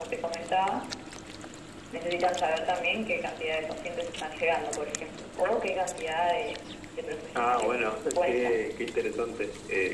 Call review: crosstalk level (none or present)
present